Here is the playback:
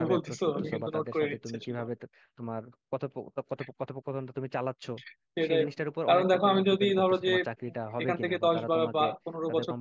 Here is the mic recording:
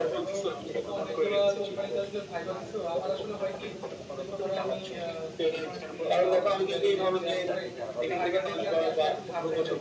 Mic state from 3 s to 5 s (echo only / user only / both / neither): both